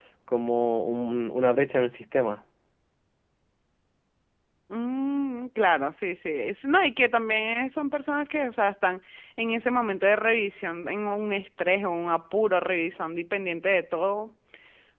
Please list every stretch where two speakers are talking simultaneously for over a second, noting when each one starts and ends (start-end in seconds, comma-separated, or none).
none